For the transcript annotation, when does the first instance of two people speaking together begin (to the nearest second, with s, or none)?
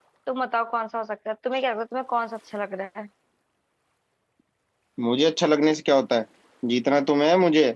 none